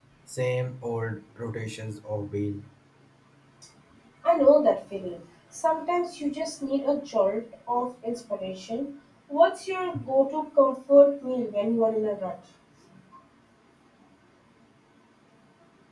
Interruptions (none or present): none